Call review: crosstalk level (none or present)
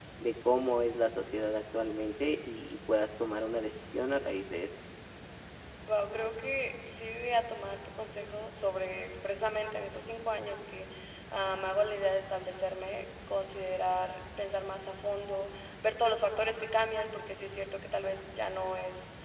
none